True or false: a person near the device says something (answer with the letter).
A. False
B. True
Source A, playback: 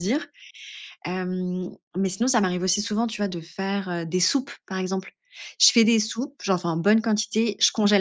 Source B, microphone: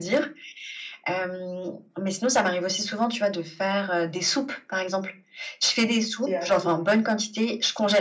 B